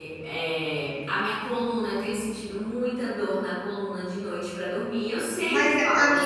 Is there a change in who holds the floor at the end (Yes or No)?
Yes